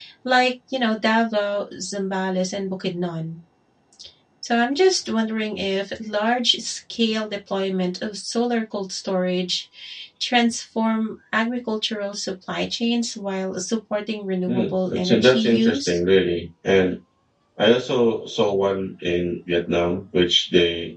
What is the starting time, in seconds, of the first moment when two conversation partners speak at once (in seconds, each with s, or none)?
14.5 s